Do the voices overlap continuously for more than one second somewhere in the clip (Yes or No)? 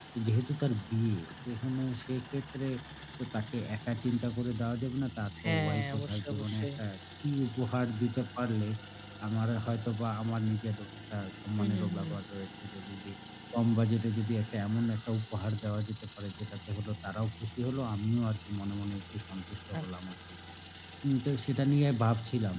Yes